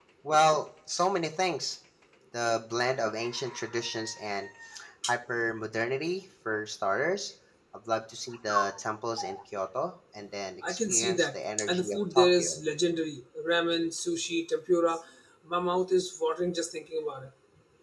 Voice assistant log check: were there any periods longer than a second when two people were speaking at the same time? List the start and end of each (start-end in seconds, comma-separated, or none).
10.7-12.6